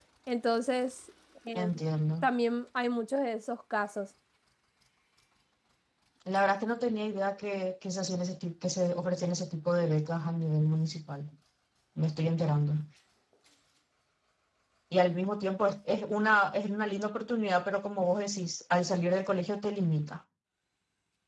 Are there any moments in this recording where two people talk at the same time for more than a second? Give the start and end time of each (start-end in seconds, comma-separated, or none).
none